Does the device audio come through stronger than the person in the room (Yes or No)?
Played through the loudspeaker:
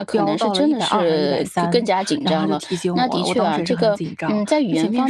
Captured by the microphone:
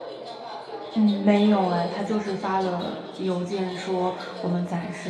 No